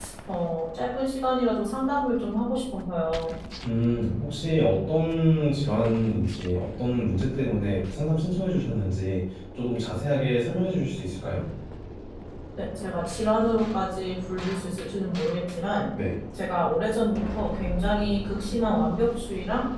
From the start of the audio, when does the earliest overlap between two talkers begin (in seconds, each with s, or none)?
none